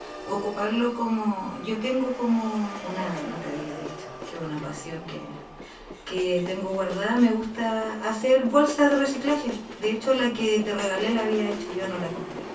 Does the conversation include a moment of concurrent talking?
No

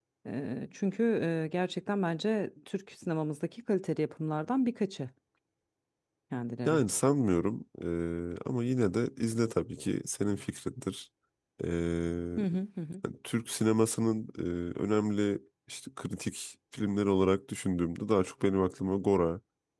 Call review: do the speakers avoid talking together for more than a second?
Yes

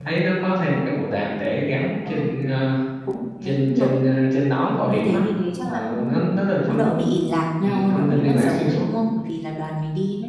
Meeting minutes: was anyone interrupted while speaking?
Yes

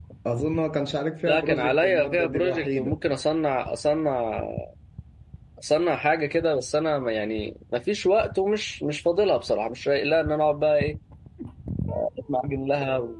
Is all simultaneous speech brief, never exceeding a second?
No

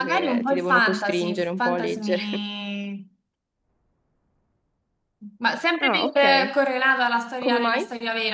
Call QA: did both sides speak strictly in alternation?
No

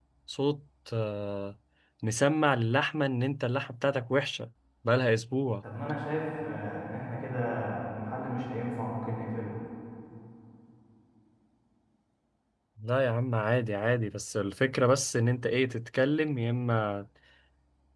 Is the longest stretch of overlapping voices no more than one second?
Yes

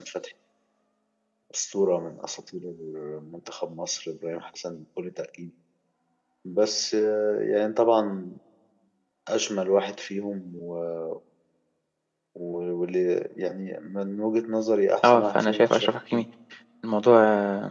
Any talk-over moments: Yes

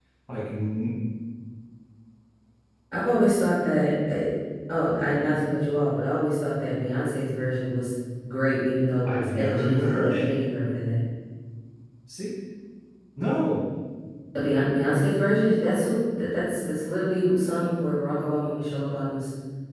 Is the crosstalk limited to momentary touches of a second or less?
No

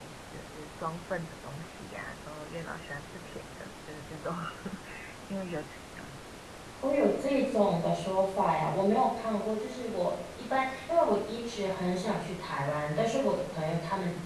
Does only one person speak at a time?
Yes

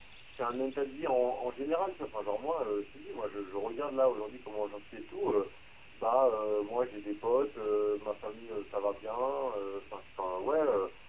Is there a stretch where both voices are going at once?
No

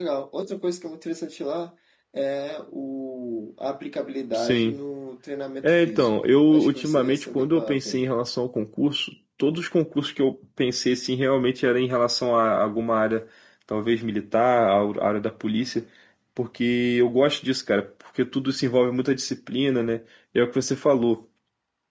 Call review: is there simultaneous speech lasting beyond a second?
Yes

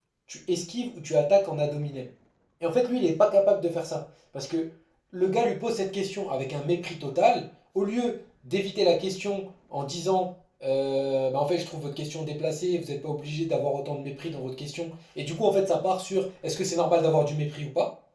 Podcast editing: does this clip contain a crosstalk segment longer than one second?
No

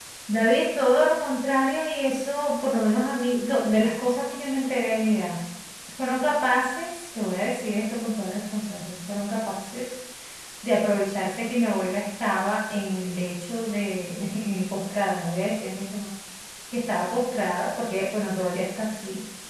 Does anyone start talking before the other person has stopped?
No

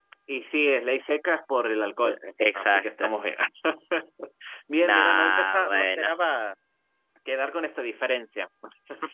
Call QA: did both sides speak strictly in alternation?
No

